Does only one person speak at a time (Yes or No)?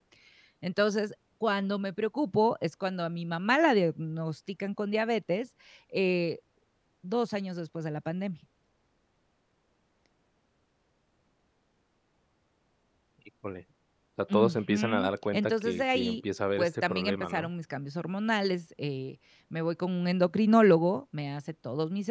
No